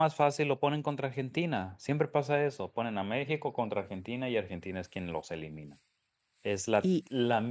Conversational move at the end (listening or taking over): listening